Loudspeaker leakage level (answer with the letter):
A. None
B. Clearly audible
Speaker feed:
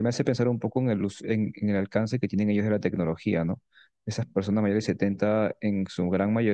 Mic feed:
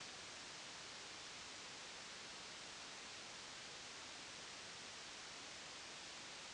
A